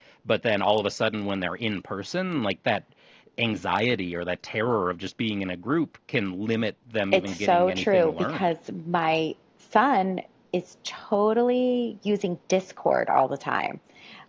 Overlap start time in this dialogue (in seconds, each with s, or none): 7.1 s